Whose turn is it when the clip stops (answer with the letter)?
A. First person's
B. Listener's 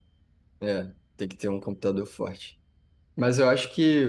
A